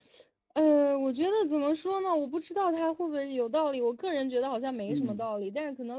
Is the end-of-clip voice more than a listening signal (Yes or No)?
No